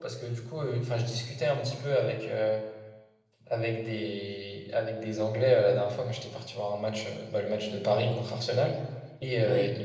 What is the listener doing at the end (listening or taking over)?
listening